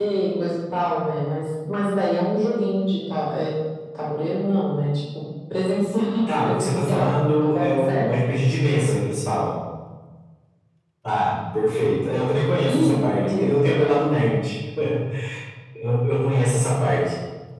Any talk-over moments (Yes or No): Yes